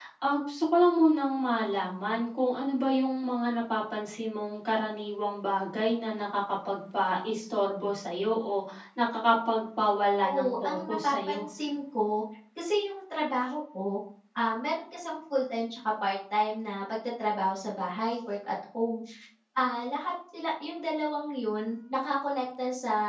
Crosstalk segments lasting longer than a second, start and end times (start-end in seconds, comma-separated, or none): 10.2-11.4